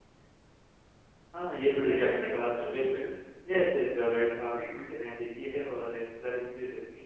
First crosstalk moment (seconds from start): 1.6 s

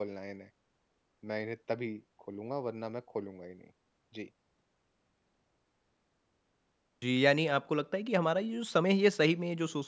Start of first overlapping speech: none

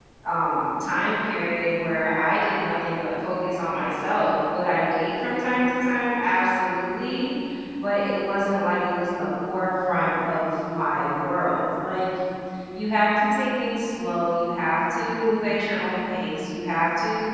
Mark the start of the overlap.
none

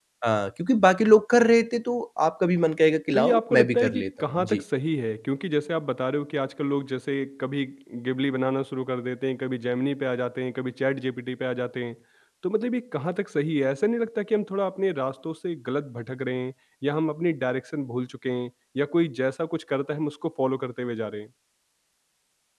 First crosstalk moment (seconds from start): 3.1 s

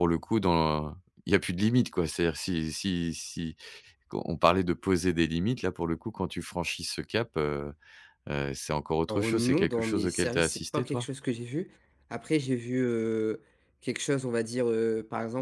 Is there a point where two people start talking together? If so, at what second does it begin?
9.1 s

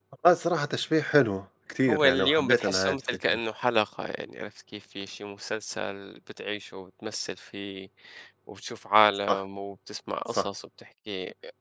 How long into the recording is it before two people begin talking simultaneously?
1.9 s

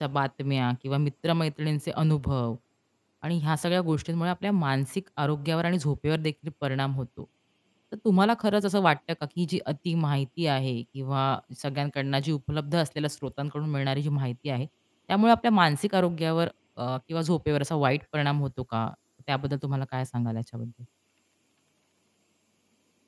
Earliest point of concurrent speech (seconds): none

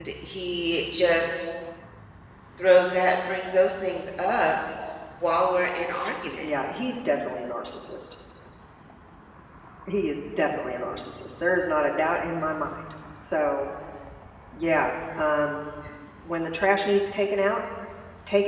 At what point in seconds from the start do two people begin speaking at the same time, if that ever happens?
none

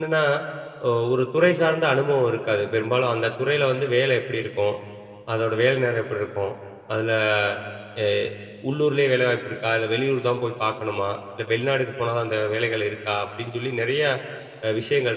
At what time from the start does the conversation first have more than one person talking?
none

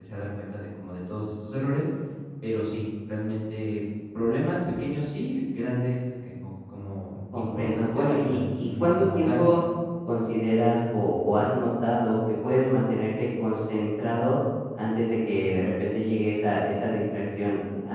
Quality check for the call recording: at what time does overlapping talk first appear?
7.3 s

